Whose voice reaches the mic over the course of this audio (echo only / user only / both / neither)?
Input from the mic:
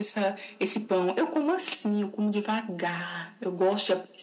echo only